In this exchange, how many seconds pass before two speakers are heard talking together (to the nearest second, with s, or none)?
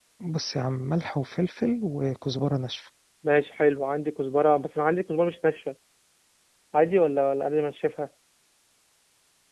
none